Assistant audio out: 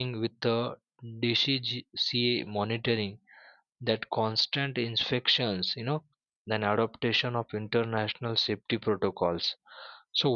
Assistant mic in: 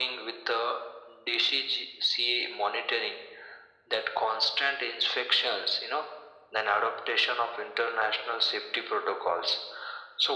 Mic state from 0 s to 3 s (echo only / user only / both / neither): echo only